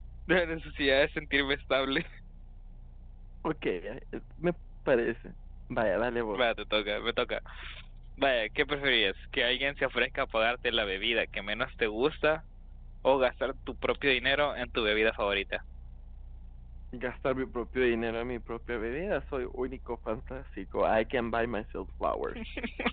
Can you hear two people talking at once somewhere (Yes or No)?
No